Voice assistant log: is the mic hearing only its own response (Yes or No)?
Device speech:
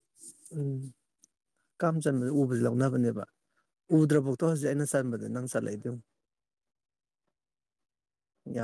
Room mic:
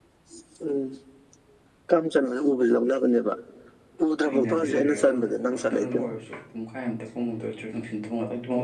No